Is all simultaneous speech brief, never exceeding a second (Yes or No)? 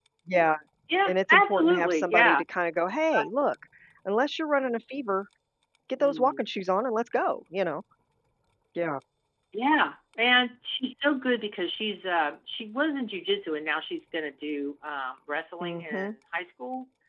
No